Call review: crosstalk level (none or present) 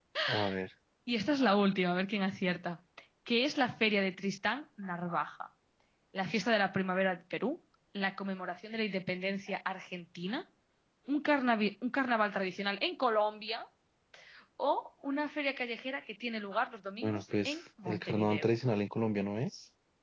present